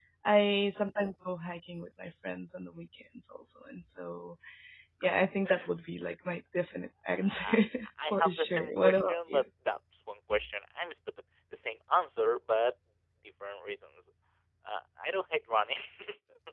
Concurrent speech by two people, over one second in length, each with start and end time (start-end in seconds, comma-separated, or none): 8.0-9.4